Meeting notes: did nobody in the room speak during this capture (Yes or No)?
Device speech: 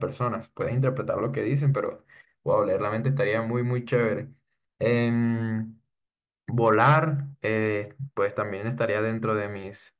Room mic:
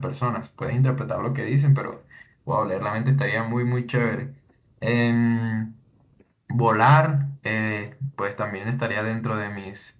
Yes